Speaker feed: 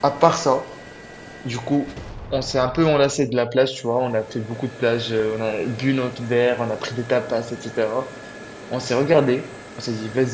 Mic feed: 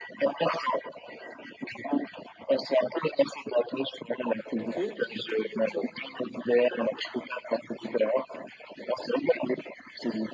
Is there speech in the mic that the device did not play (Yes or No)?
Yes